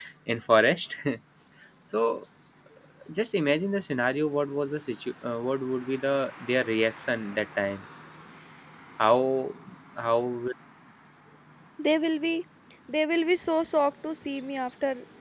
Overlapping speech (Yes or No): No